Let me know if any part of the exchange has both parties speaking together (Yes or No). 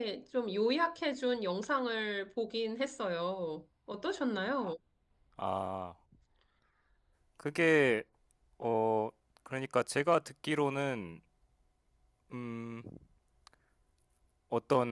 No